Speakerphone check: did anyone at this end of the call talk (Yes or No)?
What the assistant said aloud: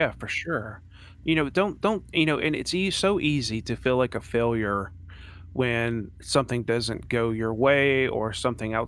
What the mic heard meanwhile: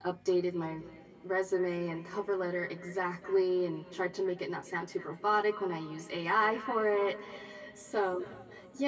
Yes